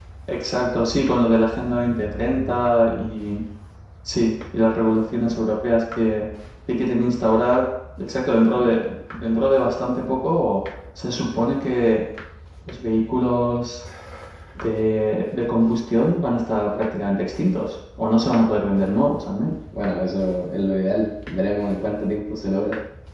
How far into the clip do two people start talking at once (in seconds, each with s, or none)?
none